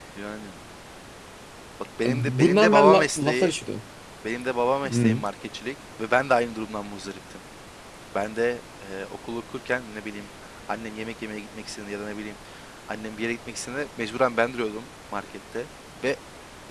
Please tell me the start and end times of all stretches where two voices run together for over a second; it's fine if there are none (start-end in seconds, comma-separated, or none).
2.0-3.5